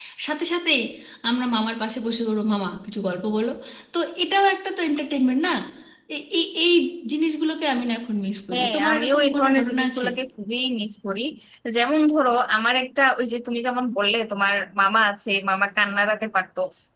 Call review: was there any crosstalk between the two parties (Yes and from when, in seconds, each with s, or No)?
Yes, from 8.5 s